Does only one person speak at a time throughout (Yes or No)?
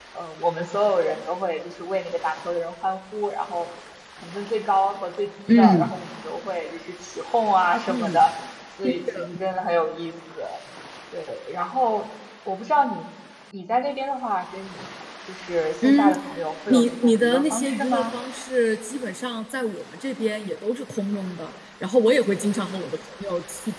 No